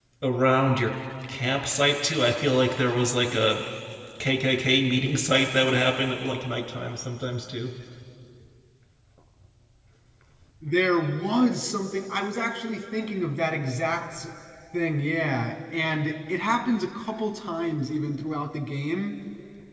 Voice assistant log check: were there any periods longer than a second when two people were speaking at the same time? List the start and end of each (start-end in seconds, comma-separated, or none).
none